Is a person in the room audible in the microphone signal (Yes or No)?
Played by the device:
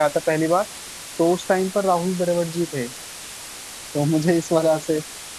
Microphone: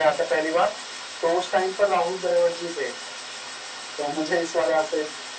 No